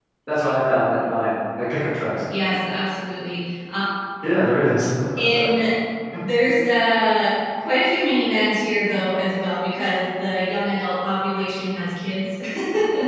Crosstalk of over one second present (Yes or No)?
No